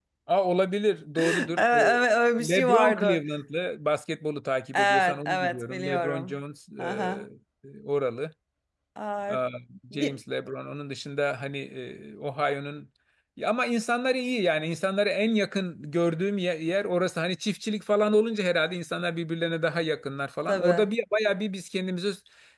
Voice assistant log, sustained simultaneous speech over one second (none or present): present